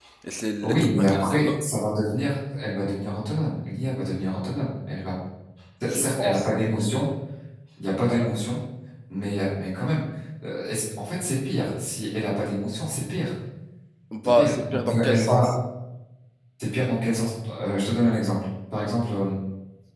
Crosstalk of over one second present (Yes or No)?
Yes